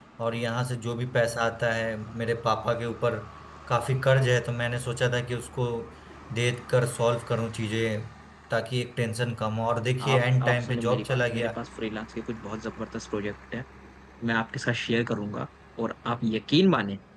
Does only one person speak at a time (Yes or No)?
No